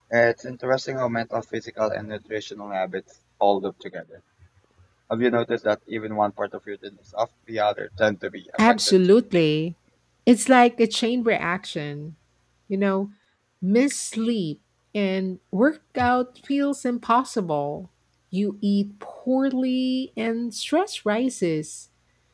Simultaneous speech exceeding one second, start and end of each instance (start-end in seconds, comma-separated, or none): none